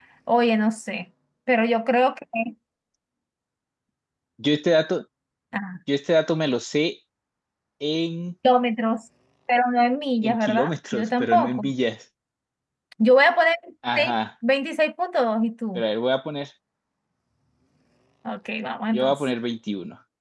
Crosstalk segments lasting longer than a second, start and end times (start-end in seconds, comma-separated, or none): 10.2-11.6